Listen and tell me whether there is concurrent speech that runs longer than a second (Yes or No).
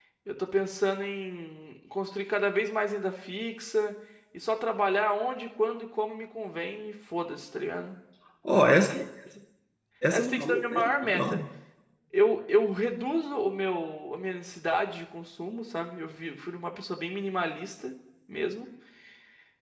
Yes